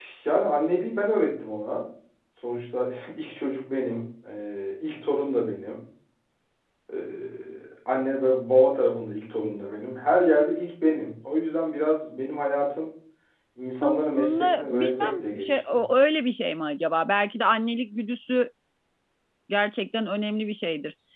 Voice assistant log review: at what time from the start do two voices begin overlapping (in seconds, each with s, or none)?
13.8 s